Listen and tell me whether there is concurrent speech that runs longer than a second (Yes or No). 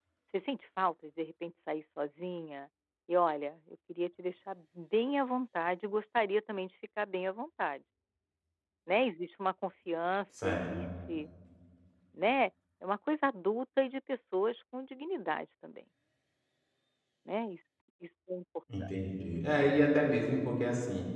No